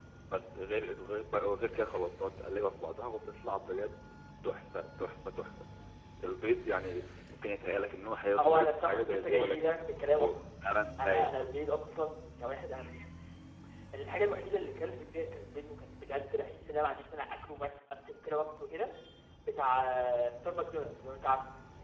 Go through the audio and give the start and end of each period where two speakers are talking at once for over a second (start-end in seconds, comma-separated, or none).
8.3-10.3